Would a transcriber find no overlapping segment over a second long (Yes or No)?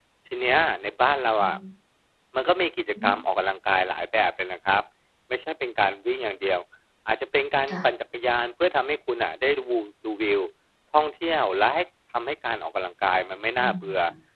Yes